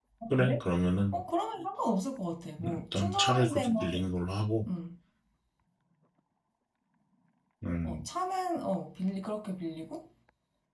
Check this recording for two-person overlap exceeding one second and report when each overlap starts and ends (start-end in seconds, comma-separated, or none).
2.8-4.0